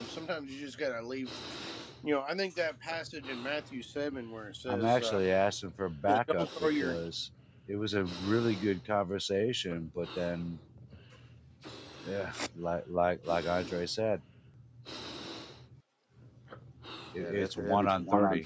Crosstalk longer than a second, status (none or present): present